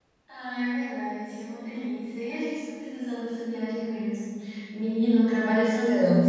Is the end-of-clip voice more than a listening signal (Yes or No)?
No